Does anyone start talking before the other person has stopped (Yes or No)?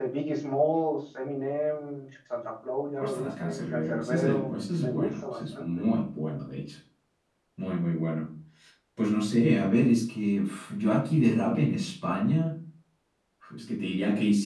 Yes